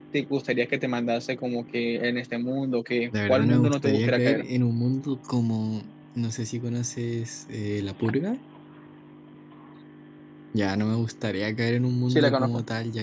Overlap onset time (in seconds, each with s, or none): 3.1 s